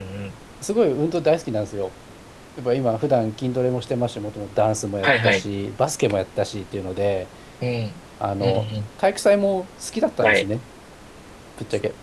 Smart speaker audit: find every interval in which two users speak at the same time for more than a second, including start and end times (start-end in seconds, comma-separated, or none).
none